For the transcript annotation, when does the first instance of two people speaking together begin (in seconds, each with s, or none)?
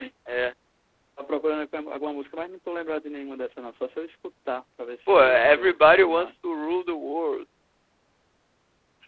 5.1 s